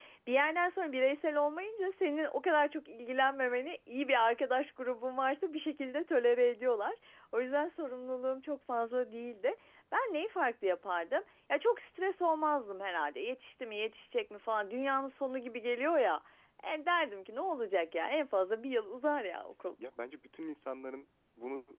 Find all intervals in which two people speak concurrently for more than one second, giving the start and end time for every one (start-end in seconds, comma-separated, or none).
none